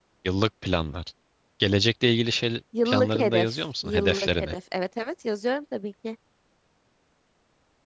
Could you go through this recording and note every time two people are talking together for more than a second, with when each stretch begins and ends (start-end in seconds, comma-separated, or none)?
2.8-4.6